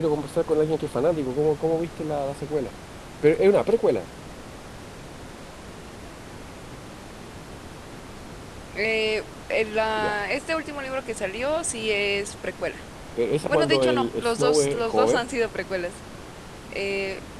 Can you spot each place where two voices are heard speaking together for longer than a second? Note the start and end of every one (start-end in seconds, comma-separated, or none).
13.5-15.2